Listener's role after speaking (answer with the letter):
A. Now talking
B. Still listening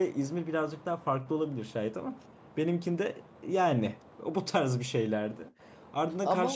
B